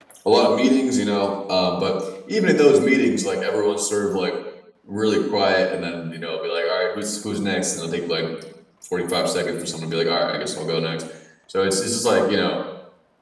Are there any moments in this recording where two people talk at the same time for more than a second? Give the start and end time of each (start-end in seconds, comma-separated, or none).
none